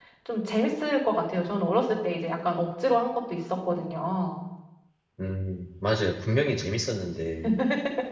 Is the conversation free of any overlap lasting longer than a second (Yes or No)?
Yes